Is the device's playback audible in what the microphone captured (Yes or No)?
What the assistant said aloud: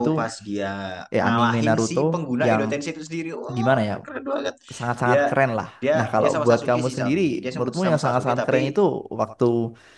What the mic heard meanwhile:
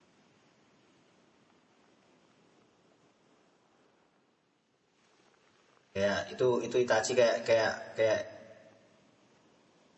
No